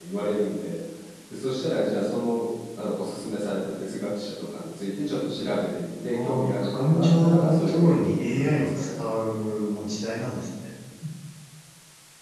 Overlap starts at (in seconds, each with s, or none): 6.1 s